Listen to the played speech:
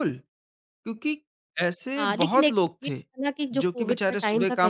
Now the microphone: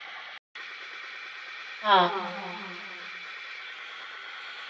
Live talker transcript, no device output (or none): हाँ,